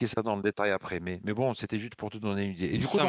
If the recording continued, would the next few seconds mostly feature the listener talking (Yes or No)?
No